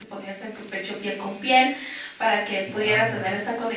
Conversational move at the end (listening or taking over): listening